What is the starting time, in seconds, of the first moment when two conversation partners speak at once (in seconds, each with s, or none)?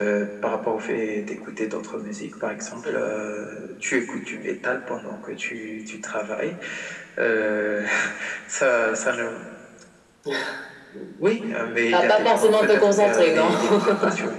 11.9 s